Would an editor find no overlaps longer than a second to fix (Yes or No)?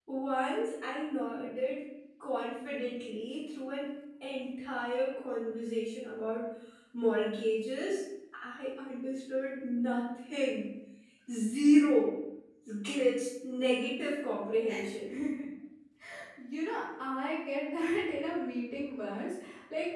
Yes